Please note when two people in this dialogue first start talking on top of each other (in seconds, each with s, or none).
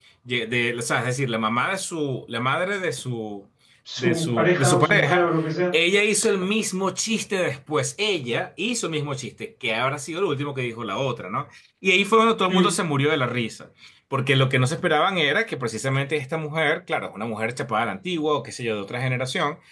4.0 s